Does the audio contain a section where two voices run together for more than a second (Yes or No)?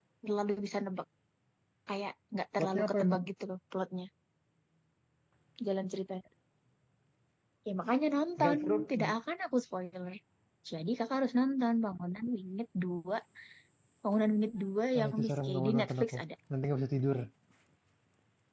Yes